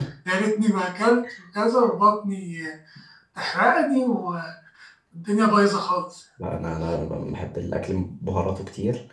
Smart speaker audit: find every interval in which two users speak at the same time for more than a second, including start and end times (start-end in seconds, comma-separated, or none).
none